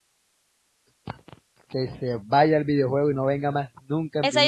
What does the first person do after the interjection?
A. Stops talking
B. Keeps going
A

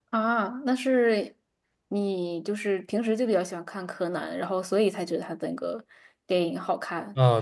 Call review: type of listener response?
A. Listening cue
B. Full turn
B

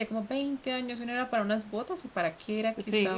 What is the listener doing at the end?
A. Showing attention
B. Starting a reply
B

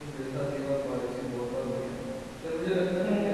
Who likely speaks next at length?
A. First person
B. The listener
A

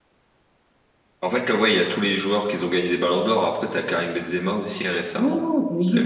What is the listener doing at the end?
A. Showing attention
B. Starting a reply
B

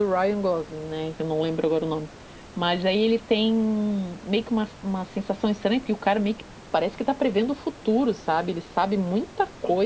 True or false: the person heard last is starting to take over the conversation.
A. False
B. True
A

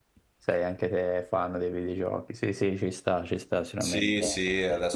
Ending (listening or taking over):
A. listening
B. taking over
B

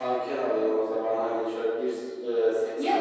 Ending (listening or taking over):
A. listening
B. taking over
B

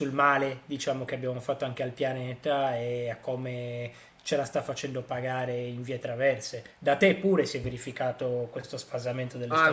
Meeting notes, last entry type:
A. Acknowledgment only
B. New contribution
B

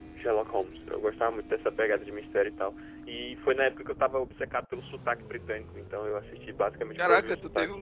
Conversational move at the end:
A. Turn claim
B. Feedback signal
A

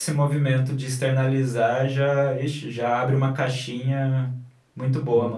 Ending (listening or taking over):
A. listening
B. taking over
B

